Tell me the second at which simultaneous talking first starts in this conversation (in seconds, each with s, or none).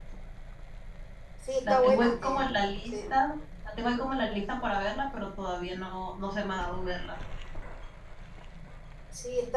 1.7 s